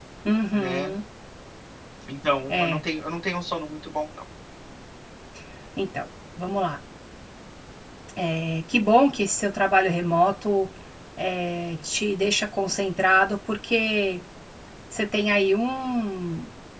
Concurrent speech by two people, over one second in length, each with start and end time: none

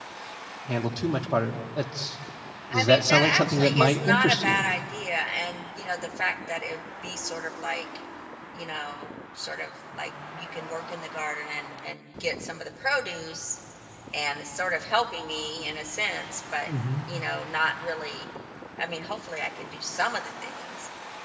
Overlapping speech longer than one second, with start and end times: 2.7-4.6

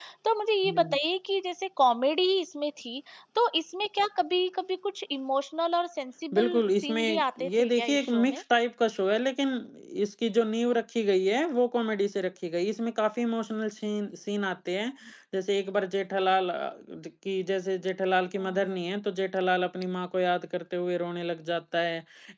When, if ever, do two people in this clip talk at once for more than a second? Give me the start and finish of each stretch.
6.3-8.4

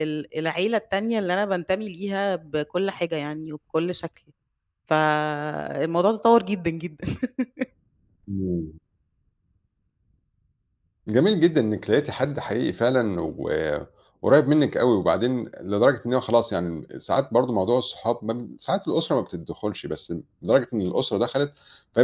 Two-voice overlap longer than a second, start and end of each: none

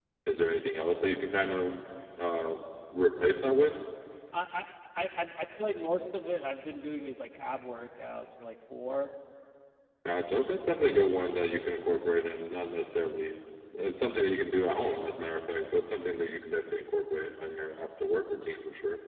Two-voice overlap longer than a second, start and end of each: none

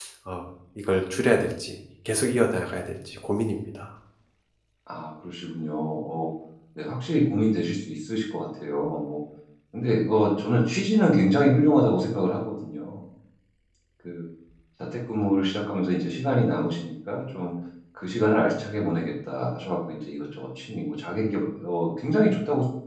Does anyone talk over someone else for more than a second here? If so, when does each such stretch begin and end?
none

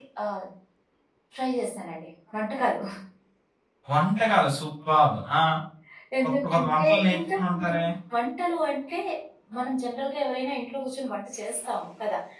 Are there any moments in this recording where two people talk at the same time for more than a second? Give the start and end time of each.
6.4-7.8

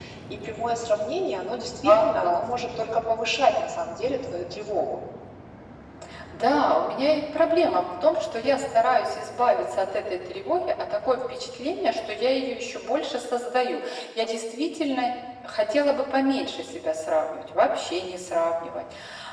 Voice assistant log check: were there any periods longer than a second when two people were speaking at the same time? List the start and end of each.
none

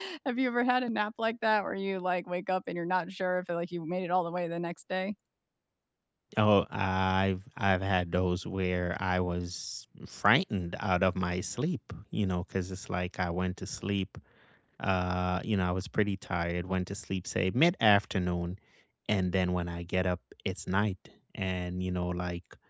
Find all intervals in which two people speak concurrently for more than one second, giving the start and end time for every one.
none

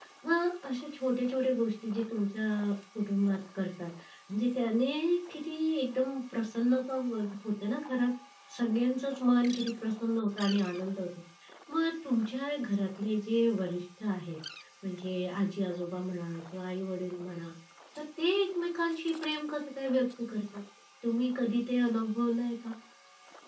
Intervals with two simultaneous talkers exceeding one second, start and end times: none

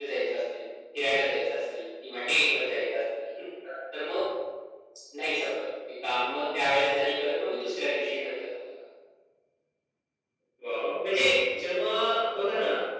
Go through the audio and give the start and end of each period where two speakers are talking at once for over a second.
none

